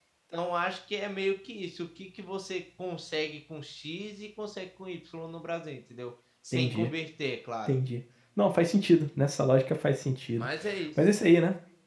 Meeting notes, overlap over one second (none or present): none